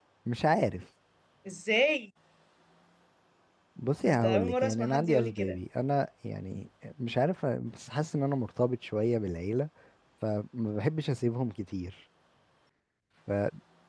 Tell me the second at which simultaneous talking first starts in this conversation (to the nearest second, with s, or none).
4 s